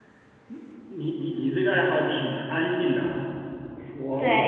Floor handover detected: Yes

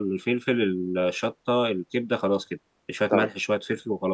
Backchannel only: Yes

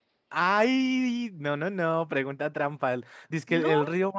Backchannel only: Yes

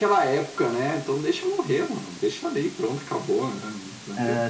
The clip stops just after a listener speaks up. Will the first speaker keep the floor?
No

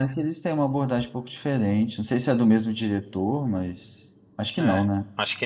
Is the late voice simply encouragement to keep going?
No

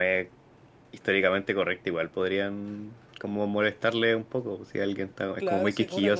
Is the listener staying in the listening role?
No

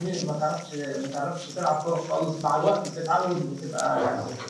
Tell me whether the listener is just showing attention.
No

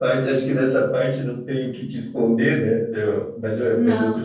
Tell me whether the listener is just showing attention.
Yes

